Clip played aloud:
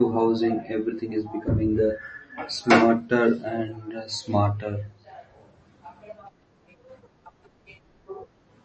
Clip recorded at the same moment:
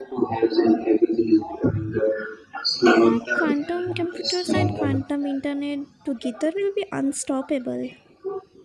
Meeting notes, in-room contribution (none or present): present